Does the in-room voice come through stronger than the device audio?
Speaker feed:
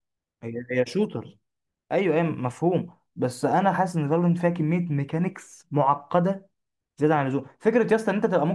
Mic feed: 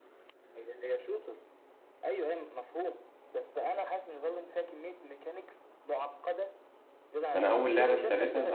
Yes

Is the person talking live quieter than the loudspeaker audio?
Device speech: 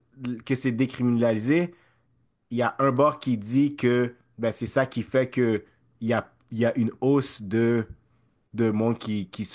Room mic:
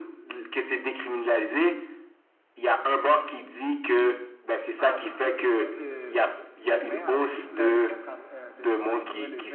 Yes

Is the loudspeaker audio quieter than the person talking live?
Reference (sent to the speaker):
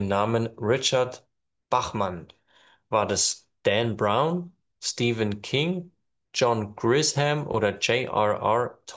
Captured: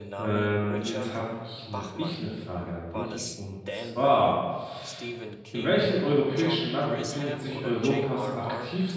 Yes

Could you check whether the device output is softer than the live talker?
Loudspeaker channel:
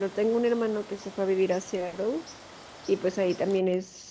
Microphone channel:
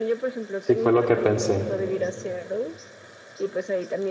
Yes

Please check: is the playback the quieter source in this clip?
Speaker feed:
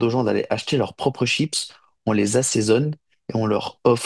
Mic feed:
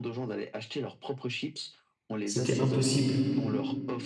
Yes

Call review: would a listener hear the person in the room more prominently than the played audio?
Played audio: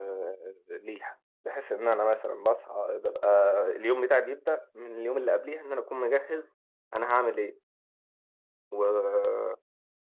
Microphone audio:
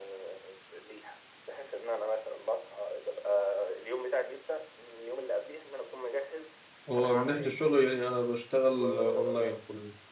Yes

